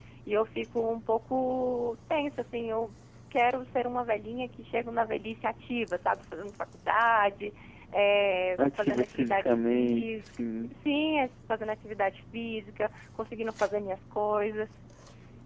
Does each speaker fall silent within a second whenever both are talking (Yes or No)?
No